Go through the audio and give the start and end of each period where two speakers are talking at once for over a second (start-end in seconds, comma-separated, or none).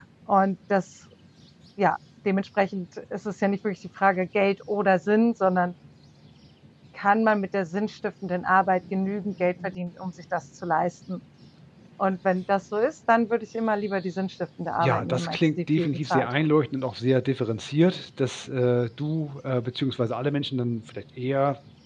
14.8-16.3